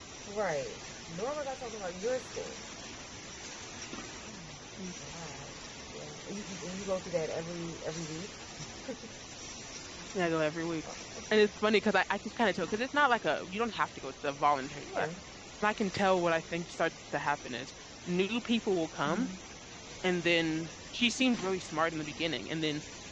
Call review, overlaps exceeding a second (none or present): none